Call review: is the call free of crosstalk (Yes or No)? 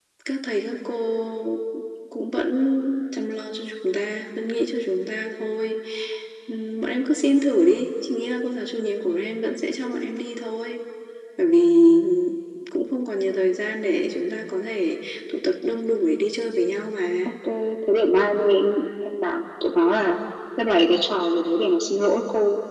Yes